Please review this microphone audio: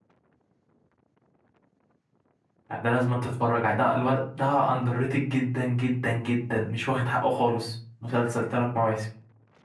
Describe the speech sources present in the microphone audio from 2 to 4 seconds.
user only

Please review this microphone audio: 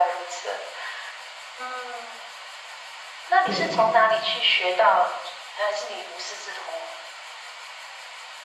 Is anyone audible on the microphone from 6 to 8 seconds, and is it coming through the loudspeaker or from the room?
echo only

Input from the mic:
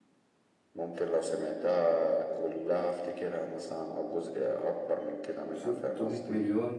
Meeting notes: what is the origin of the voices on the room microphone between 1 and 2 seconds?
echo only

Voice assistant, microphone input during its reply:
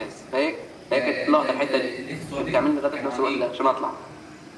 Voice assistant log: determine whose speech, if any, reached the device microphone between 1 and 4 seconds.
both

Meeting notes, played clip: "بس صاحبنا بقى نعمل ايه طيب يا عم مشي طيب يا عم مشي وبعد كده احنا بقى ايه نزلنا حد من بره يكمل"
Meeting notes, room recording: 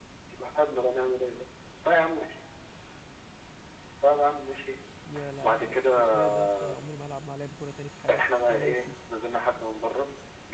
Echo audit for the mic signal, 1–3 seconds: echo only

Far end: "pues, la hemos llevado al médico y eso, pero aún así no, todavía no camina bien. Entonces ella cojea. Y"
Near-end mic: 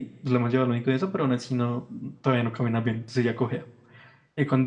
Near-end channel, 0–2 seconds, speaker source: echo only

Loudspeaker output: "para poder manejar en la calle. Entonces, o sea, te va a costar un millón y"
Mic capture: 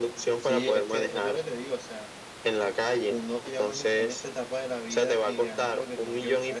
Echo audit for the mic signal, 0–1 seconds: both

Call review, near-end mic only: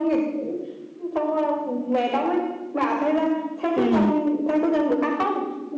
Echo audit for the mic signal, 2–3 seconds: echo only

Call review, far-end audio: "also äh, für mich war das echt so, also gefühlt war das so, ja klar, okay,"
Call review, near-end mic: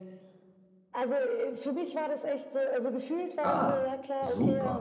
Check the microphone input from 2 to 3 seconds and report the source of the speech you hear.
echo only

